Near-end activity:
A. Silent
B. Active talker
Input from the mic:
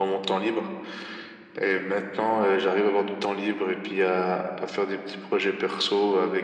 A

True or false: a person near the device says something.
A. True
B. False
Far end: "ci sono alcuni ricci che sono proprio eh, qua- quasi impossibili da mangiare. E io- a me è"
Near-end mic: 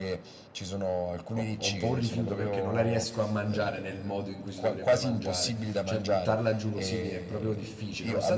A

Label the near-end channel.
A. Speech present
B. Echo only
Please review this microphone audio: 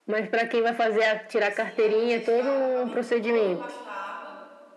A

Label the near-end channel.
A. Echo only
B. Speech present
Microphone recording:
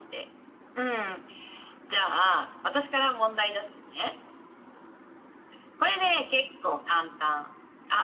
A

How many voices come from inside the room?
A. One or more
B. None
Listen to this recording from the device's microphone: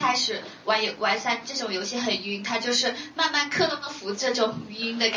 A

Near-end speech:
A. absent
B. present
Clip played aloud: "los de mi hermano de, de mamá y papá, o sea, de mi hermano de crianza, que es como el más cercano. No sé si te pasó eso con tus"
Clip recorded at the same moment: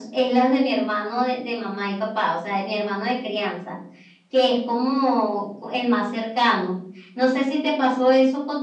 A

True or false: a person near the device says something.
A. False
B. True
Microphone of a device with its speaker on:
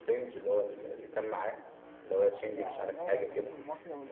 B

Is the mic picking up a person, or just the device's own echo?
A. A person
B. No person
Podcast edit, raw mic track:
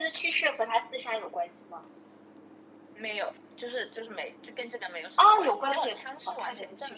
B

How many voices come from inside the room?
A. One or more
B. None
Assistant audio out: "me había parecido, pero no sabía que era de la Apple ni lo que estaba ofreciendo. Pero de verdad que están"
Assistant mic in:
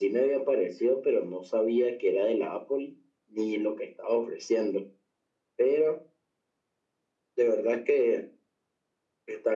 B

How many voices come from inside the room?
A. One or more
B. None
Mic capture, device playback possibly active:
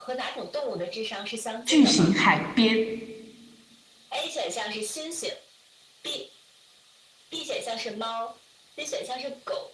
A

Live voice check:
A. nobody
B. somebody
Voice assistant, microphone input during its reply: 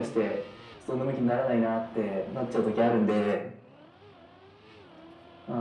A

